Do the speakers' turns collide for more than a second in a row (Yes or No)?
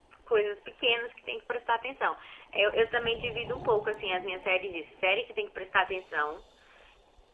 No